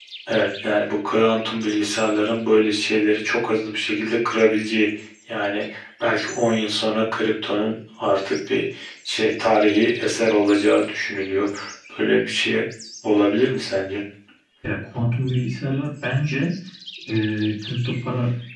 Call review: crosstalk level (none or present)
none